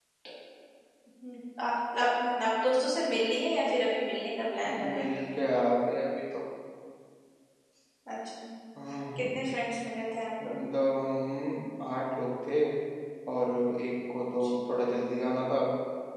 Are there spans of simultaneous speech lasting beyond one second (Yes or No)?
No